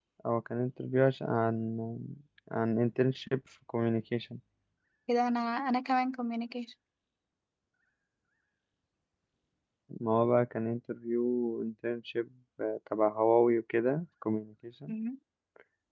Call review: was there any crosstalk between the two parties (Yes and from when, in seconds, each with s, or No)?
No